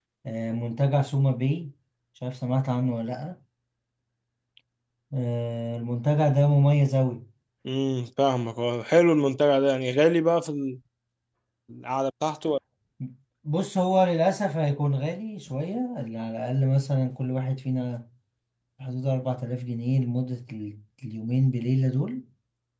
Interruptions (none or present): none